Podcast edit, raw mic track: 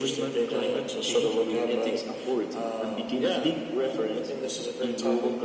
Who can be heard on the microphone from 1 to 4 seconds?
echo only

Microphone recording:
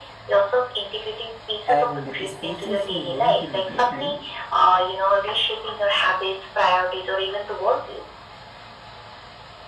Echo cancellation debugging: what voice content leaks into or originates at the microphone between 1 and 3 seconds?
both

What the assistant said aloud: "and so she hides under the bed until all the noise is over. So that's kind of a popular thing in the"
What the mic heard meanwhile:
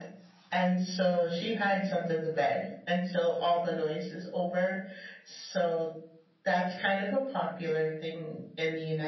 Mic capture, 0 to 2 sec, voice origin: echo only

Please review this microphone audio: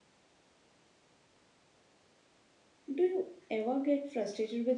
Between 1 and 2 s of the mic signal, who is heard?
neither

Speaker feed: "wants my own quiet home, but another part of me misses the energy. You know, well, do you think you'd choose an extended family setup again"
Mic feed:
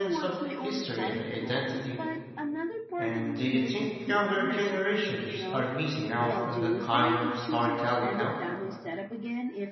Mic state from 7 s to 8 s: both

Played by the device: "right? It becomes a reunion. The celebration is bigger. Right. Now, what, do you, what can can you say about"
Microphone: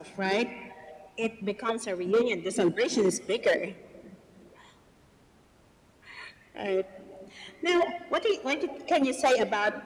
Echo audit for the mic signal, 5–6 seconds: neither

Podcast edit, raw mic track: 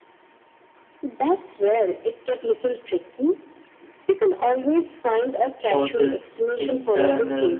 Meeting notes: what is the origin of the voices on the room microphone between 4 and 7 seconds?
both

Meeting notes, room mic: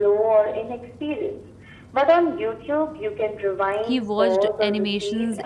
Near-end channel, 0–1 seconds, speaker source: echo only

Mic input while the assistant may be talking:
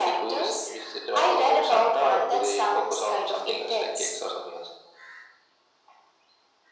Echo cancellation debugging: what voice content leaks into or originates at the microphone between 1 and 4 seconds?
echo only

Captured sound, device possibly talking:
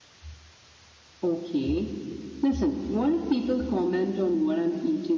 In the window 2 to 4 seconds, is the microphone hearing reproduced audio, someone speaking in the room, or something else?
echo only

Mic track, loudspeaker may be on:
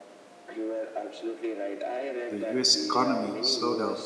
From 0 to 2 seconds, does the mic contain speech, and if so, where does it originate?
echo only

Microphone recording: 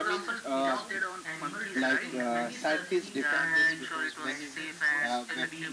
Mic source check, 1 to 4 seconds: both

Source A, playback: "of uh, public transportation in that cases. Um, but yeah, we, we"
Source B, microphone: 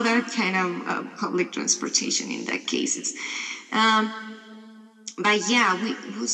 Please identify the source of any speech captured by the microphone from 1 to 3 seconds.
echo only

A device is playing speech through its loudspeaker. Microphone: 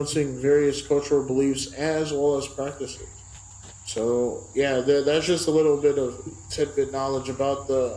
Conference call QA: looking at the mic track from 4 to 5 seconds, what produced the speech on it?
echo only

